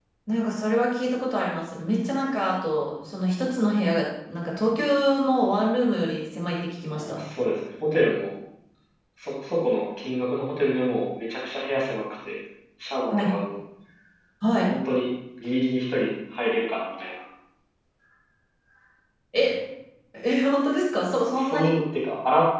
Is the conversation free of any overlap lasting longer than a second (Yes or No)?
Yes